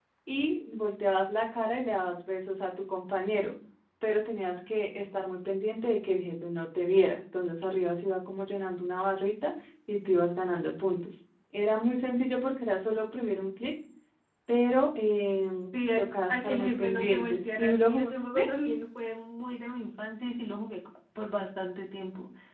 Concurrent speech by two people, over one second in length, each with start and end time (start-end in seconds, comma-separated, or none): 16.0-18.1